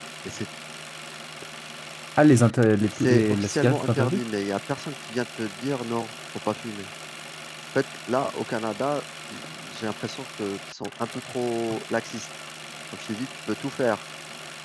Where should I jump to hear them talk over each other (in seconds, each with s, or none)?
3.0 s